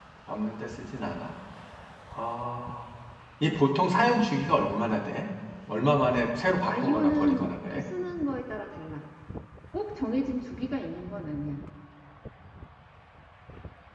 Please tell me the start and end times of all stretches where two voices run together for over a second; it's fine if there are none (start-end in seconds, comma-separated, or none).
5.8-7.8